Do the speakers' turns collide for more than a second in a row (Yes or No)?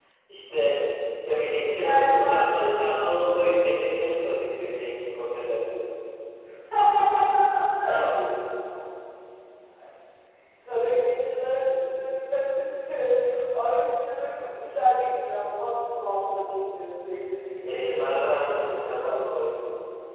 Yes